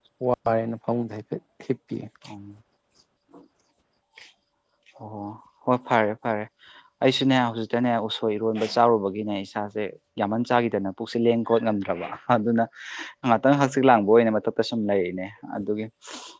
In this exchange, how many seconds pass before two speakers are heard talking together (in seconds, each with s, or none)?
none